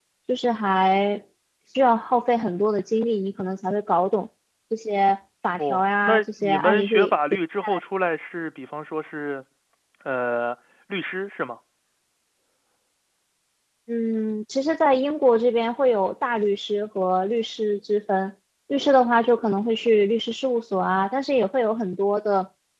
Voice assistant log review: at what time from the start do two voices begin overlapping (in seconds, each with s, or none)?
5.6 s